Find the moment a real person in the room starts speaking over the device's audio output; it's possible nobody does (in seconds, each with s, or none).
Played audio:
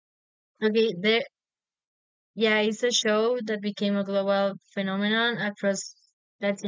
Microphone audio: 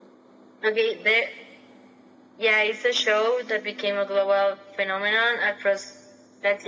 none